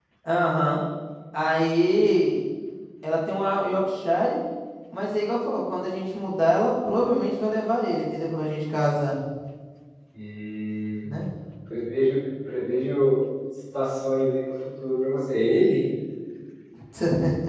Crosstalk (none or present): none